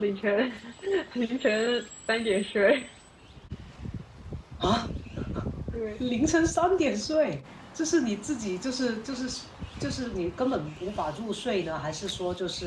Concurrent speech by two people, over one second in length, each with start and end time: none

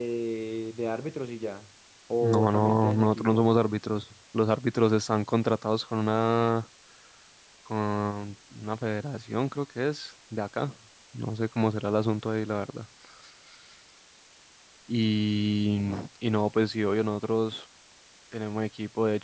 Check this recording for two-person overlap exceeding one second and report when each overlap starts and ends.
2.2-3.4

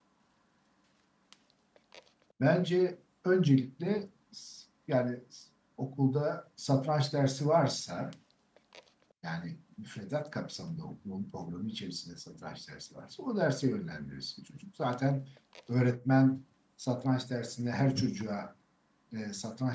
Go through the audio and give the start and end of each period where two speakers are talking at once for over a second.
none

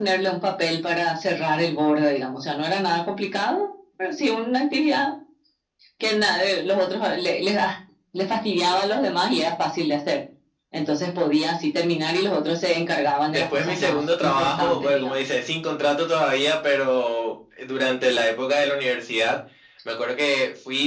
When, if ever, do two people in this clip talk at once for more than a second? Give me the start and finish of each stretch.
13.3-15.1

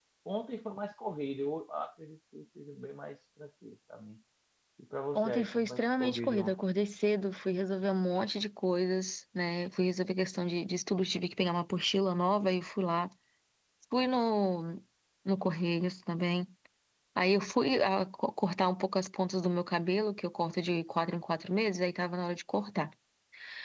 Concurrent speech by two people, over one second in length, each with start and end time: 5.2-6.6

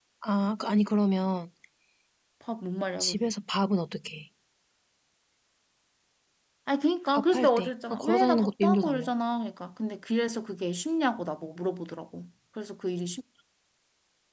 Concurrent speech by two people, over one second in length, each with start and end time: 7.1-9.1

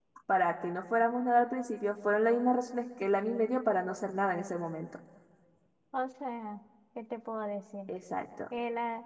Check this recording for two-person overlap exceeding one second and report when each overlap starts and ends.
none

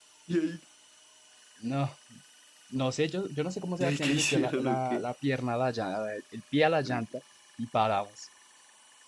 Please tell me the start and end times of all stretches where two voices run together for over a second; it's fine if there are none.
3.8-5.0

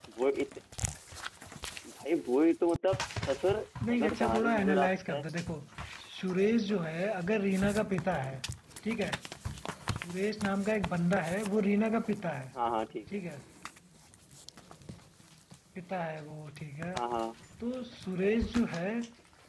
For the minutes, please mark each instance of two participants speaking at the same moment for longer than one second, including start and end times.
3.9-5.2

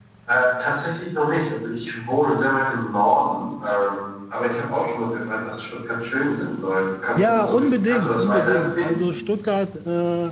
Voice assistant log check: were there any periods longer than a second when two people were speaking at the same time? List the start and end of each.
7.2-9.0

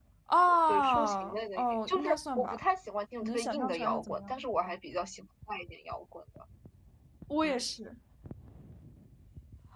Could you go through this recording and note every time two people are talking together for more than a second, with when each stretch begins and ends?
0.7-2.6, 3.2-4.4

